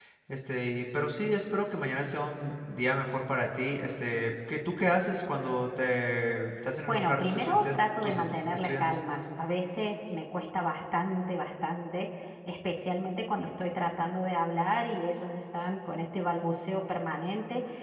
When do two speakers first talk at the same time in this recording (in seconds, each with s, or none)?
6.9 s